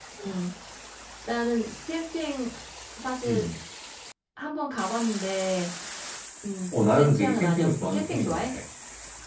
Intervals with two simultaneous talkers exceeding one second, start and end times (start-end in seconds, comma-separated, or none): 7.0-8.5